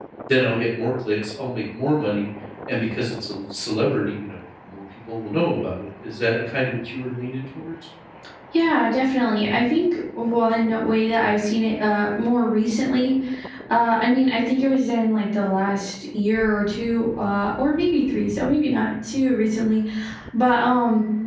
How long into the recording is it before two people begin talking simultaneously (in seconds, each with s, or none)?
none